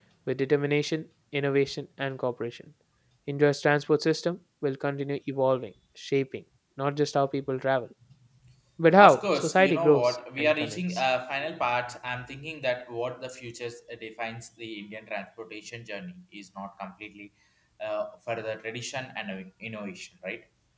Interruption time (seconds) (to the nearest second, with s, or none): 9 s